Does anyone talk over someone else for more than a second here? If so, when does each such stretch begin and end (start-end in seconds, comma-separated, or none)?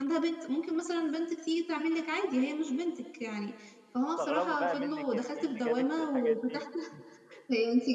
4.2-6.6